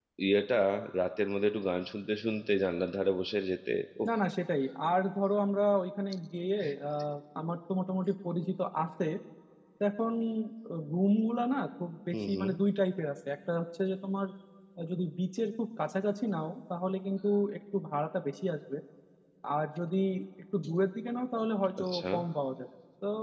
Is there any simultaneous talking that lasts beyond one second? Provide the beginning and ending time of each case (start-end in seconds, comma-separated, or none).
none